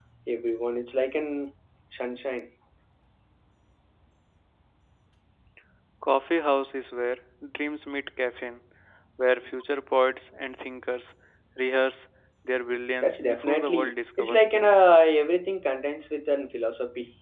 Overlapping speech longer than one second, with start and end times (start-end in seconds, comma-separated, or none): 13.0-14.8